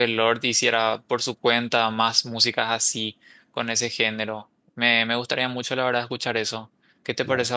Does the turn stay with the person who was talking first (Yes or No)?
No